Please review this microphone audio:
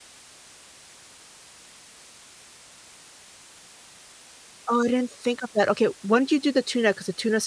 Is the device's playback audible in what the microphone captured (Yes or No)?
No